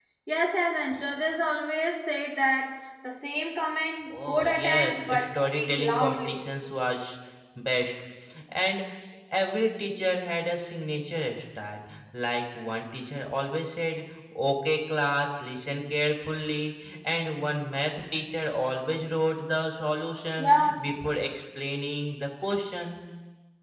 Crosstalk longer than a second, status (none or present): present